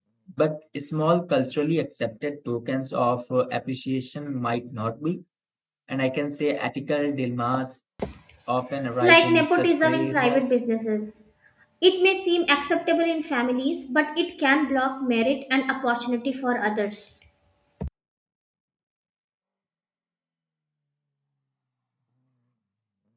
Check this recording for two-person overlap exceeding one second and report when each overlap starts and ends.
9.0-10.5

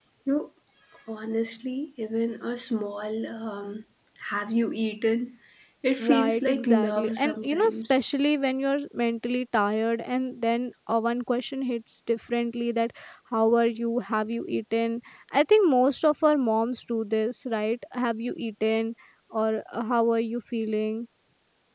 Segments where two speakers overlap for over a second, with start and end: 6.0-8.0

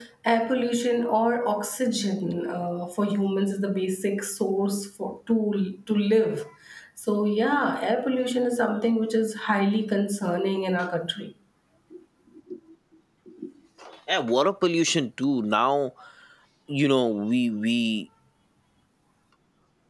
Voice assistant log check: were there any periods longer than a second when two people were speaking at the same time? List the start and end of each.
none

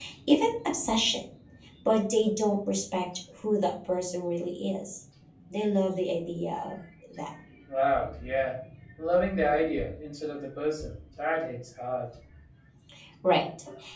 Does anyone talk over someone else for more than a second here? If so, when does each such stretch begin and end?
none

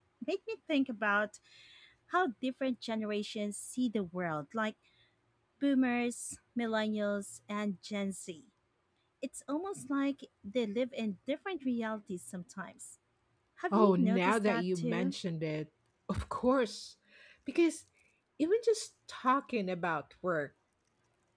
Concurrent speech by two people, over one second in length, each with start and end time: 13.7-15.1

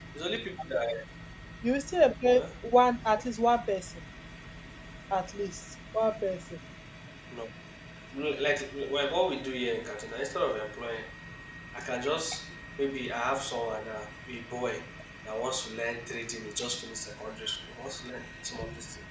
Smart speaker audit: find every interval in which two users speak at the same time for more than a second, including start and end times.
none

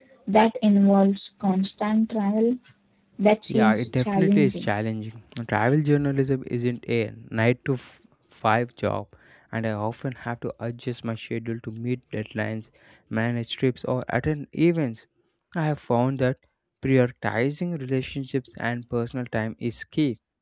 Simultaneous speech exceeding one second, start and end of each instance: 3.5-4.7

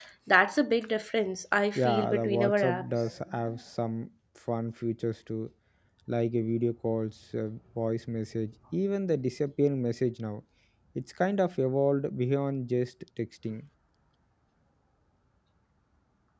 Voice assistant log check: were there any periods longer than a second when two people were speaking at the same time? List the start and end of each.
1.8-3.0

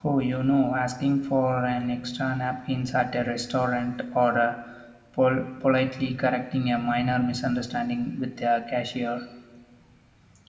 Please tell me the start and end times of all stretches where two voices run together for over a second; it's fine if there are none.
none

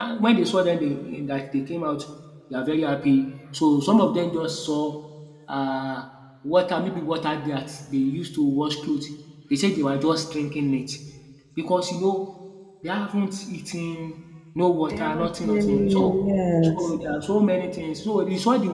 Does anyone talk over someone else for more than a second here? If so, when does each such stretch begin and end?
14.9-16.1

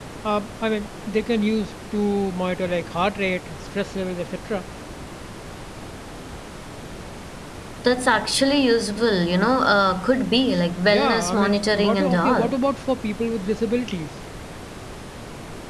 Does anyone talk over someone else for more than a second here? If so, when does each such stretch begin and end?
10.9-12.6

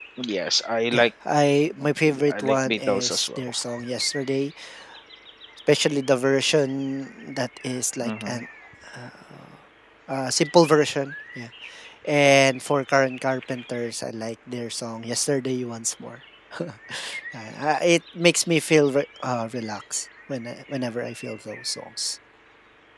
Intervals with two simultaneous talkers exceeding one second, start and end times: 2.3-3.5

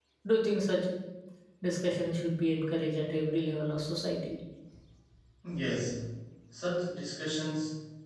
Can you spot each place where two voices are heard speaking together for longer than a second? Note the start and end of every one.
none

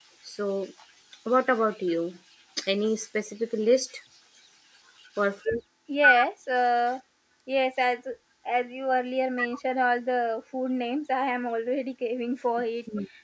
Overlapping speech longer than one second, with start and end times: none

